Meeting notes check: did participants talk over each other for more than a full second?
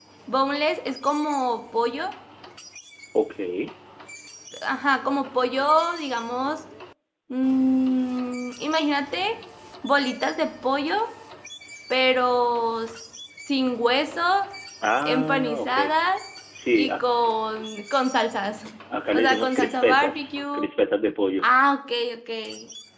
Yes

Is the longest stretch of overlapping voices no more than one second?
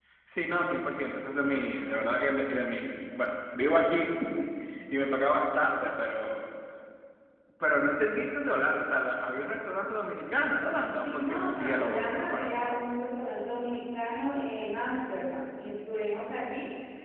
No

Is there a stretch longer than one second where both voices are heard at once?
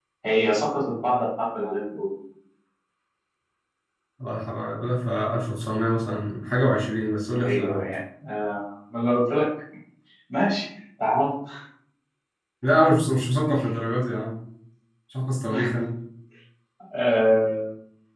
No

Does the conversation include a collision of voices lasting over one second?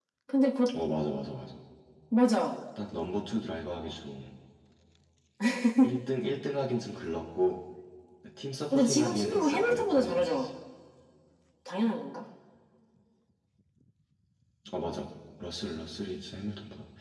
Yes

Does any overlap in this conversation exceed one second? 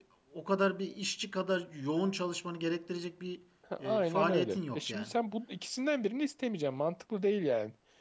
Yes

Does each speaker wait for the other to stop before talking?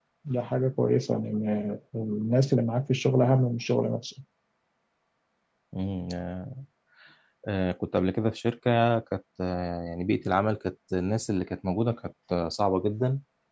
Yes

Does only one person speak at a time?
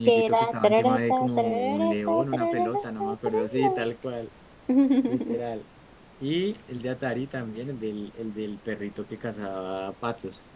No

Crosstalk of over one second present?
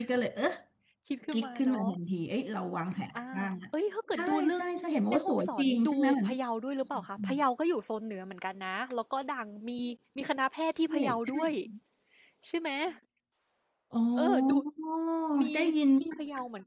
Yes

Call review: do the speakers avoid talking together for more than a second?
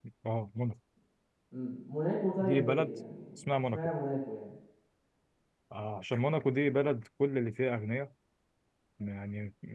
Yes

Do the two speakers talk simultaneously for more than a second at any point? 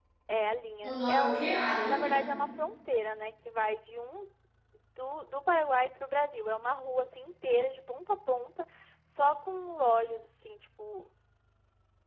Yes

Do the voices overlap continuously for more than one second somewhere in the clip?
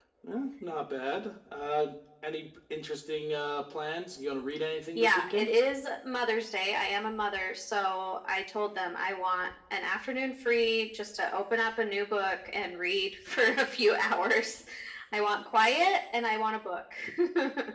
No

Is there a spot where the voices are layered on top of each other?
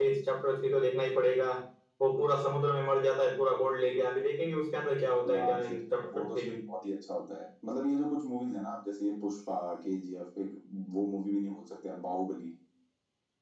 Yes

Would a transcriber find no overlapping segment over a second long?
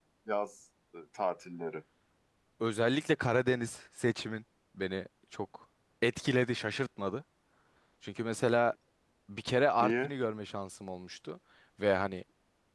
Yes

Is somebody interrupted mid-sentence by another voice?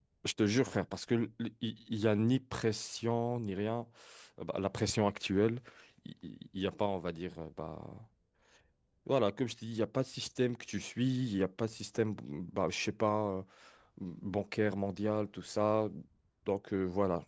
No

